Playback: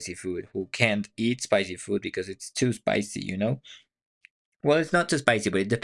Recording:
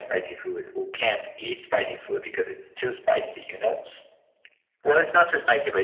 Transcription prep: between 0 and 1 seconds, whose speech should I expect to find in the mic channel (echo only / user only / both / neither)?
echo only